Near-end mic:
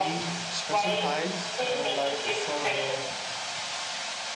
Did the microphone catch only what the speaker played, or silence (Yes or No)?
No